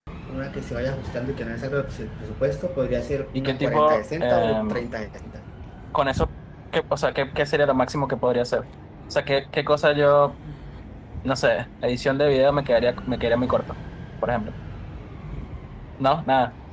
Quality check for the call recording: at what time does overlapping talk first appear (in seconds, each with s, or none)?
3.4 s